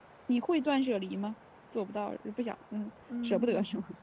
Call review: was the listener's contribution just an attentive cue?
No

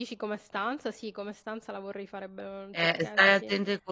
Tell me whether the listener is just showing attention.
No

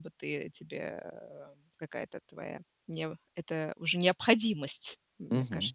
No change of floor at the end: No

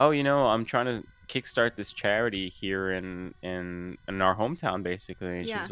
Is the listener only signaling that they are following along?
Yes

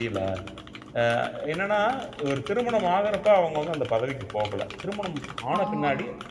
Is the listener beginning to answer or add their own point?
No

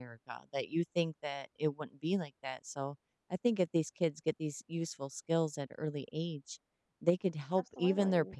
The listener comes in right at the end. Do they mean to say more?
No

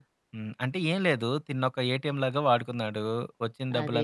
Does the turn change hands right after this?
No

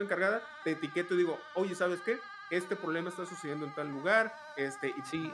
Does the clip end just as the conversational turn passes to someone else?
Yes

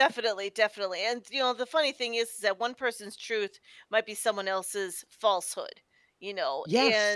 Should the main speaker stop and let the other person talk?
No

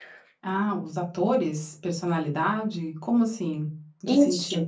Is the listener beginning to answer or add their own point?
Yes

